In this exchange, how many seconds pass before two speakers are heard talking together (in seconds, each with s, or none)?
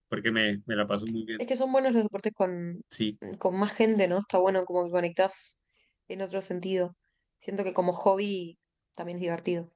none